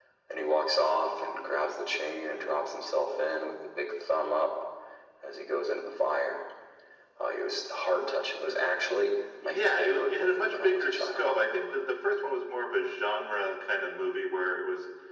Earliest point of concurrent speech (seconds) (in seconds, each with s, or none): 9.4 s